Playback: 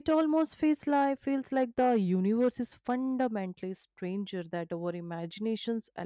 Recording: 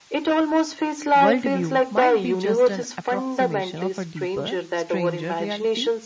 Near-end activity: present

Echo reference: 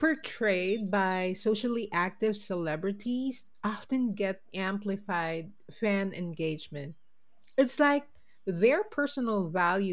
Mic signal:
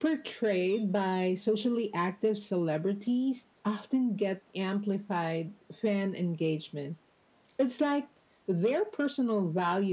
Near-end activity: none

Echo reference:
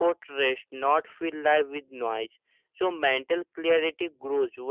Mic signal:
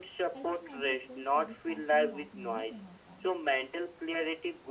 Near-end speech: present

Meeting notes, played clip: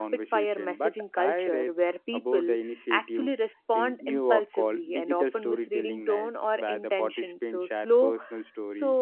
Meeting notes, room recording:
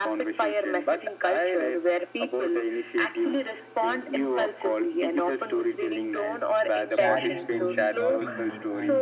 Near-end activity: present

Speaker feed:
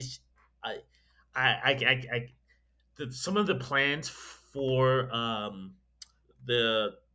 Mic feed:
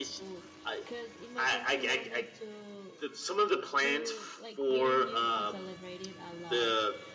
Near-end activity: present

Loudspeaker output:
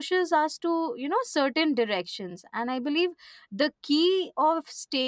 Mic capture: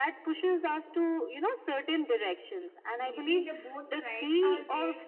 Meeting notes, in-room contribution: present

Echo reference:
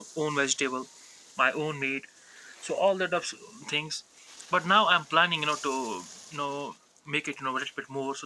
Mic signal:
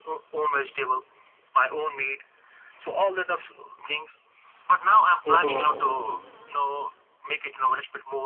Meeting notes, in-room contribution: present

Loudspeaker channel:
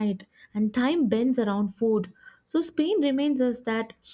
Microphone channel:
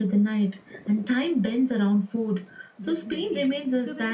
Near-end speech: present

